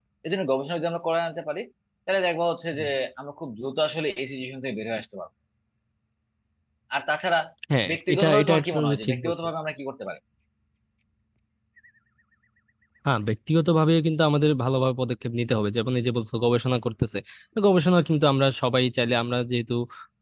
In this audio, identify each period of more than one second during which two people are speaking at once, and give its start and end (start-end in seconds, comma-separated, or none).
7.9-9.3